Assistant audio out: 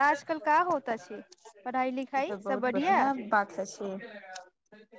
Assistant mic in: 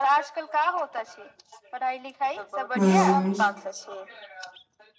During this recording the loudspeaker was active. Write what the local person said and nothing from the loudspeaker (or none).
हूं